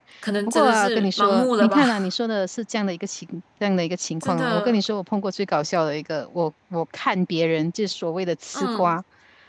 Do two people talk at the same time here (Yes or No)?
Yes